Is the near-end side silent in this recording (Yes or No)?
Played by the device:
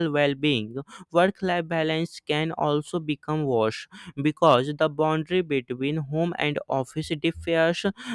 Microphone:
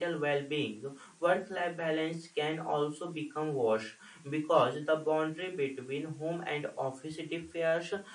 Yes